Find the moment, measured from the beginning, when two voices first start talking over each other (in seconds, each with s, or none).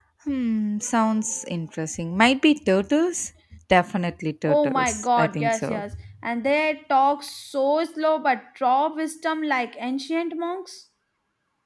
4.5 s